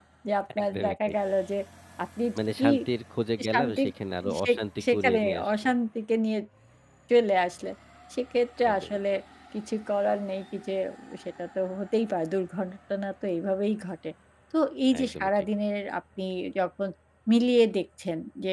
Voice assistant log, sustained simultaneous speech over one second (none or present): present